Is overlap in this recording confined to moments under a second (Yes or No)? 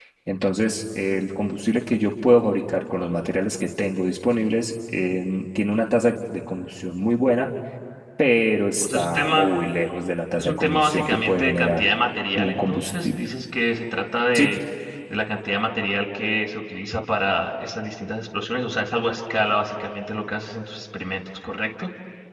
No